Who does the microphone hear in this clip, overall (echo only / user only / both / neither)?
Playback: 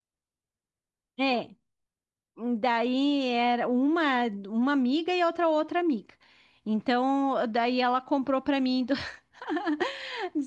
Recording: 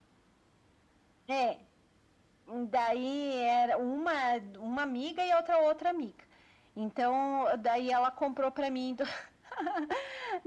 echo only